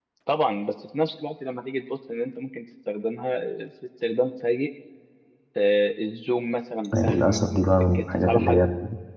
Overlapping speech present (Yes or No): Yes